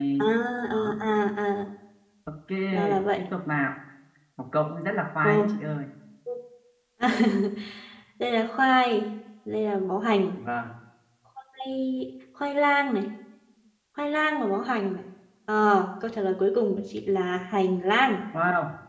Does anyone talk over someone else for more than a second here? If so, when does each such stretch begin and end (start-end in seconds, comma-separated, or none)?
none